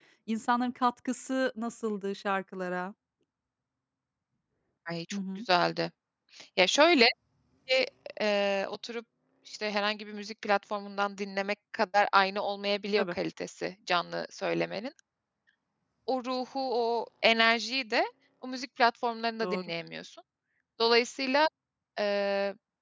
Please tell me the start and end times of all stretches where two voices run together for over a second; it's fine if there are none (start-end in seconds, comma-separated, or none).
none